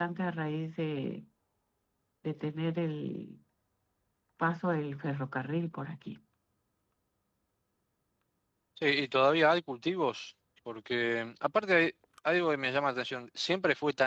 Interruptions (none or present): none